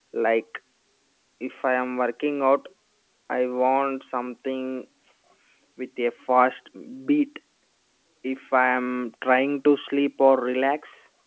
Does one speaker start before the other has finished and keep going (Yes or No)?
No